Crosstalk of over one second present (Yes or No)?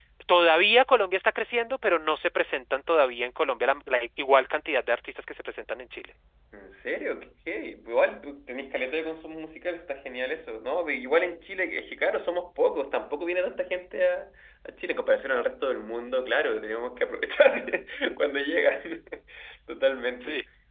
No